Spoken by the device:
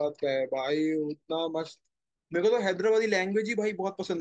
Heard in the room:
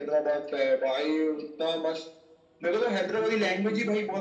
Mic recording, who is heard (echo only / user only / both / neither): both